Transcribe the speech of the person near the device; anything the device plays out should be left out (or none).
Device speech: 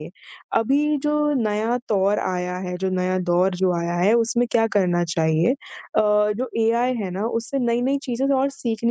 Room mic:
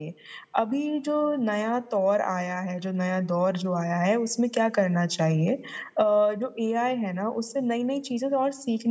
none